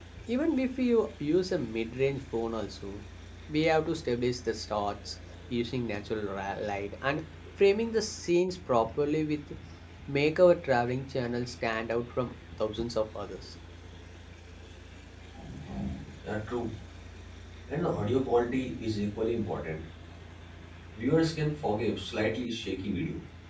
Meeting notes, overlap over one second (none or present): none